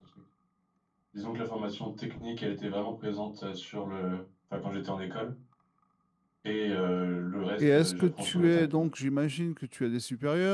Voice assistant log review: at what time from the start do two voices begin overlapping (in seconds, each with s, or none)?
7.6 s